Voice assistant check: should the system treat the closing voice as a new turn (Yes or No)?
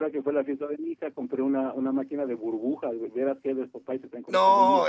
Yes